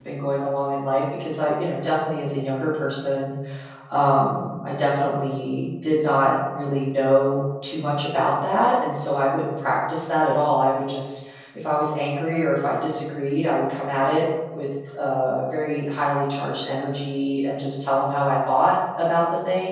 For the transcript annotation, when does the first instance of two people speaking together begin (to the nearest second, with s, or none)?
none